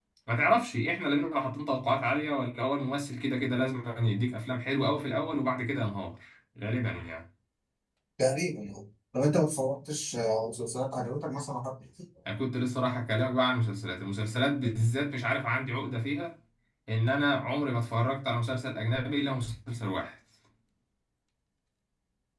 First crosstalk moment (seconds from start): none

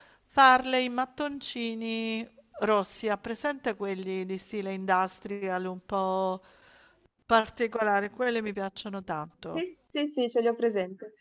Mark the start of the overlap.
none

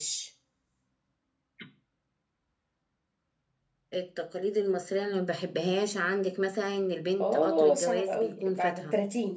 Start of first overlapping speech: 7.2 s

